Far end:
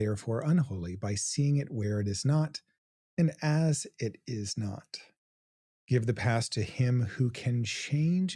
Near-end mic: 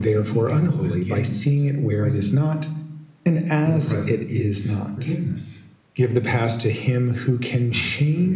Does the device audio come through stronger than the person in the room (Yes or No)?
Yes